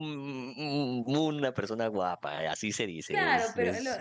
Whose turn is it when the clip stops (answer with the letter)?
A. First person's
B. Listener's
B